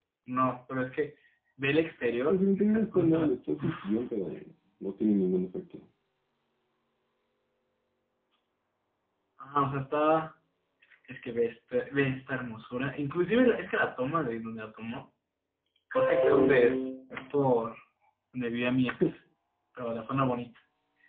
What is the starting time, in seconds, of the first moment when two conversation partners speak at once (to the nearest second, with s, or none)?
2 s